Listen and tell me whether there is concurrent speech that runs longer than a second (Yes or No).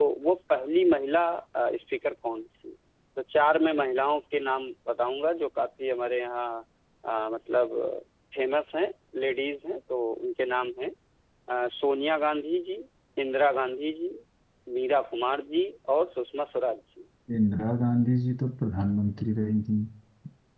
No